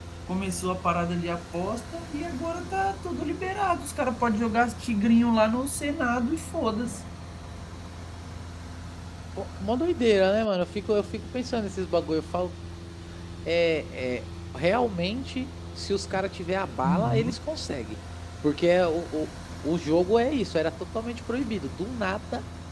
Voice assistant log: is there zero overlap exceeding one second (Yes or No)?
Yes